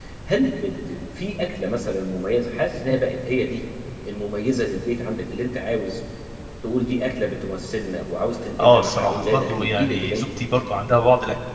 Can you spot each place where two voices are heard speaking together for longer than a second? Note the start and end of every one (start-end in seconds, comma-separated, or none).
8.6-10.3